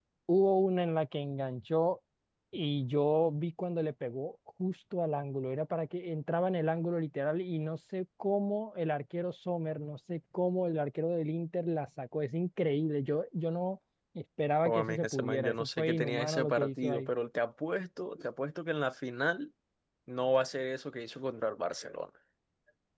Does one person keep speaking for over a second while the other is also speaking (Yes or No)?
Yes